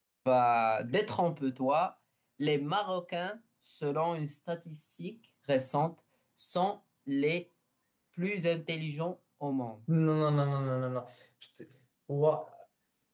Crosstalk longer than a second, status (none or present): none